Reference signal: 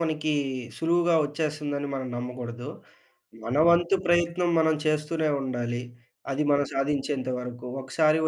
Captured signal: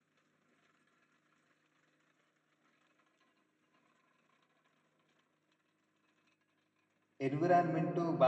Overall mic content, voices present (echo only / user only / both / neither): user only